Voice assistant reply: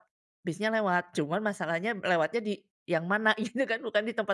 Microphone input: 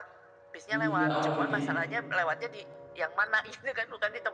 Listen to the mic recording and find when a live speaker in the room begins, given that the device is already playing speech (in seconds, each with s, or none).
0.7 s